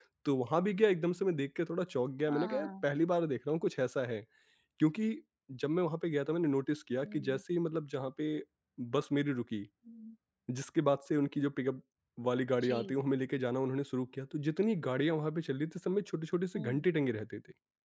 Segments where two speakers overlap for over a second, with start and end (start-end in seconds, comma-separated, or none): none